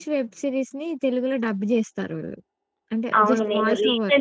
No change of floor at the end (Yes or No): No